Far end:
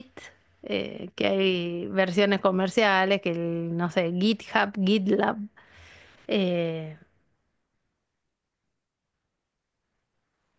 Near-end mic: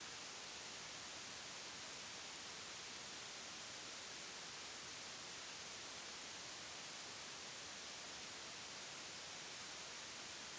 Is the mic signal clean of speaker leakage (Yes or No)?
Yes